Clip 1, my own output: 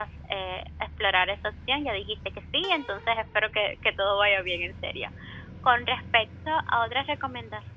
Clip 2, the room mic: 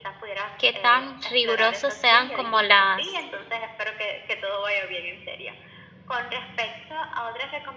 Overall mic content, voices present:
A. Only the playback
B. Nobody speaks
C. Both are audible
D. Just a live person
C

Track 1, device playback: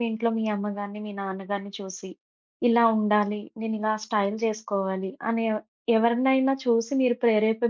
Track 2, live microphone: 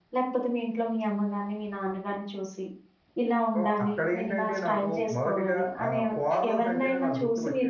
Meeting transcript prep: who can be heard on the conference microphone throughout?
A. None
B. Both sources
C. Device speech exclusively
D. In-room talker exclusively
B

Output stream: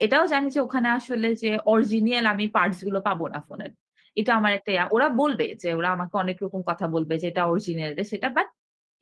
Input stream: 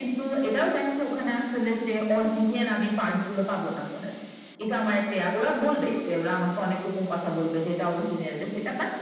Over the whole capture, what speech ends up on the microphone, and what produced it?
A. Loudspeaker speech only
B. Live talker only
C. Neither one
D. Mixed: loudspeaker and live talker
A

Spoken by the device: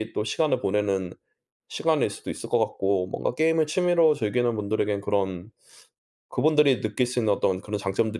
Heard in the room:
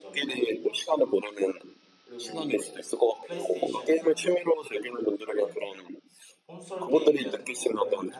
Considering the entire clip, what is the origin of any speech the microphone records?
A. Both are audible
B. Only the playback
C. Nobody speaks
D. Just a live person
A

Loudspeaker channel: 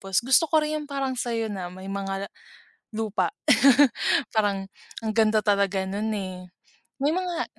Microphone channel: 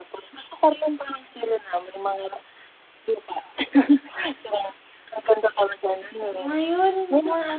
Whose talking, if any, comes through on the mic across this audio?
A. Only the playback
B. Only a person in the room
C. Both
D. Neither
C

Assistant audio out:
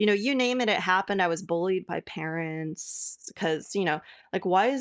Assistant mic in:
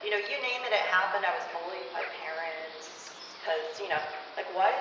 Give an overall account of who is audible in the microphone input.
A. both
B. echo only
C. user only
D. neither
B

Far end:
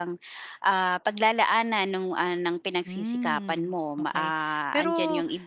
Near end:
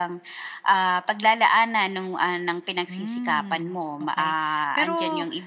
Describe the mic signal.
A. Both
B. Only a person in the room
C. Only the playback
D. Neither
C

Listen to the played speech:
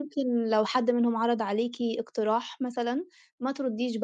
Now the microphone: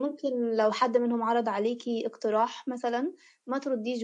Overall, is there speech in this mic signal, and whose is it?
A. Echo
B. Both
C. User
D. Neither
A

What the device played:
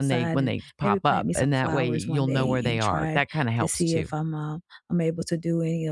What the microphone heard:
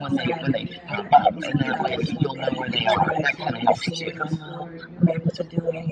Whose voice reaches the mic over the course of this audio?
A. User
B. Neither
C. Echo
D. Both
D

